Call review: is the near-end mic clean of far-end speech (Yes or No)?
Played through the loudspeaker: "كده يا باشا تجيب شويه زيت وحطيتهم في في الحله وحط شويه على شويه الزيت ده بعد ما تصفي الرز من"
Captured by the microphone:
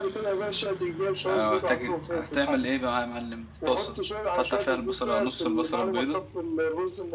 No